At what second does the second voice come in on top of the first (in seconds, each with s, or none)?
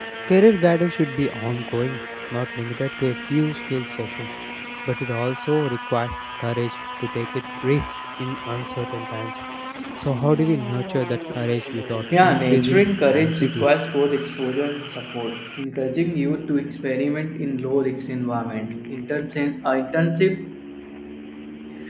12.1 s